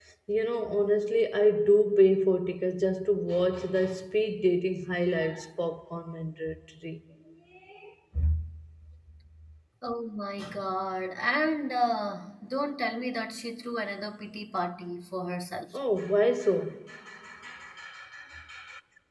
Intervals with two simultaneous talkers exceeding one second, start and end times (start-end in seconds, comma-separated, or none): none